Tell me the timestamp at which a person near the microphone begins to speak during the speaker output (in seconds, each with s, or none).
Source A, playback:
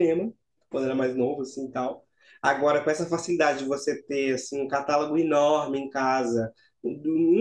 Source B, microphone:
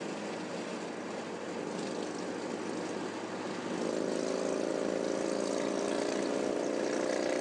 none